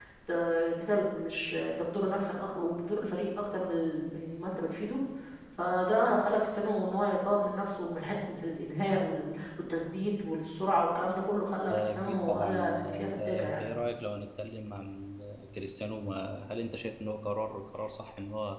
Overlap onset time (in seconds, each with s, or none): 11.7 s